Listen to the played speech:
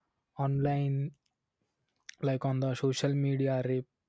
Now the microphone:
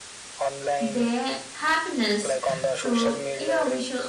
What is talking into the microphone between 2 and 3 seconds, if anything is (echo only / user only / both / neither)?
both